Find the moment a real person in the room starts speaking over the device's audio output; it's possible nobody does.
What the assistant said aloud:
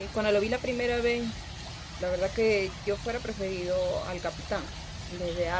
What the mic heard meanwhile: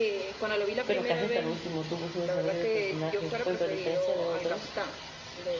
0.8 s

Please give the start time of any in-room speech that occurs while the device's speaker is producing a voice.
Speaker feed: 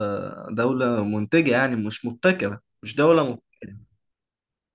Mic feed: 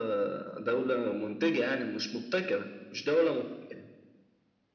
none

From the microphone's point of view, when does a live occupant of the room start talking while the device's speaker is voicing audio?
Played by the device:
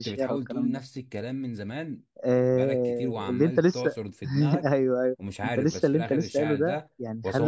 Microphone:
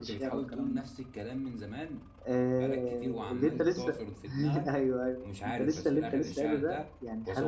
none

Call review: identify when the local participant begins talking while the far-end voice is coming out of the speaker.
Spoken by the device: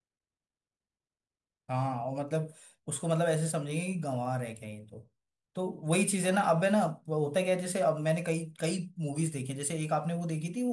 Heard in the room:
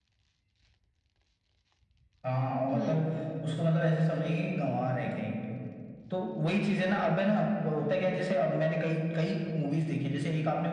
2.7 s

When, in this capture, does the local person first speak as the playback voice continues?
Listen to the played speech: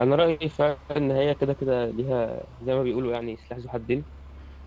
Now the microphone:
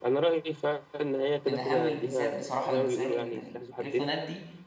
1.5 s

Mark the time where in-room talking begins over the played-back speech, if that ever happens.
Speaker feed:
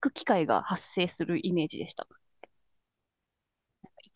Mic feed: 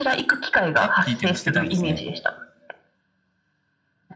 0.8 s

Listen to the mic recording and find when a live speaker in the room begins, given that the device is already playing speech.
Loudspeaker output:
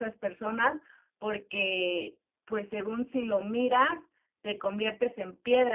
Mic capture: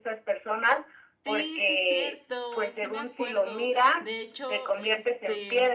1.2 s

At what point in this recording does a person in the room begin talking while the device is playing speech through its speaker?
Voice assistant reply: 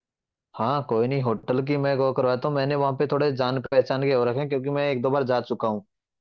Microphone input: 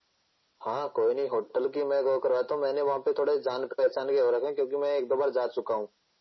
none

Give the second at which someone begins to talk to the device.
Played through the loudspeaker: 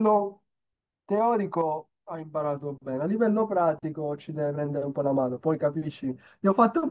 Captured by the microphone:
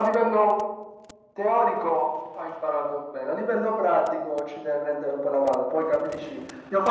none

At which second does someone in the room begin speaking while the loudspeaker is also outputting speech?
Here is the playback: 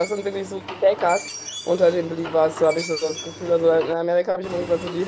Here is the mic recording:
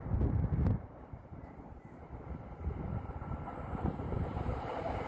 none

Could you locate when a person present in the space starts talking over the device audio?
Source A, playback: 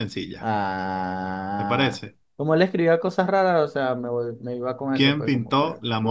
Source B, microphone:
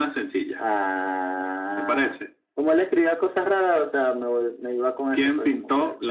none

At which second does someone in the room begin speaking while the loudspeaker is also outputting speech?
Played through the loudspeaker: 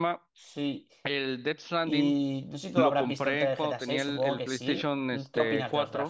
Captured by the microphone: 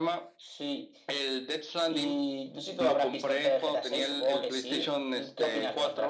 none

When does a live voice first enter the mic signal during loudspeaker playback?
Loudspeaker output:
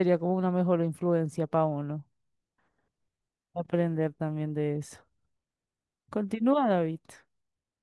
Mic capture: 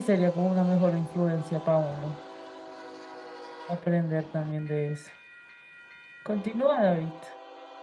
none

